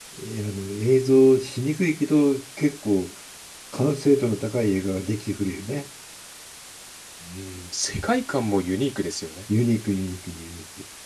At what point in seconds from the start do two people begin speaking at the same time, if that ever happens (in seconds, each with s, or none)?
none